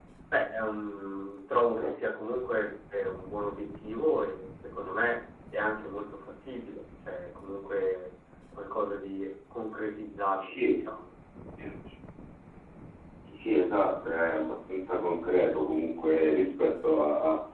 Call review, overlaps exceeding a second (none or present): none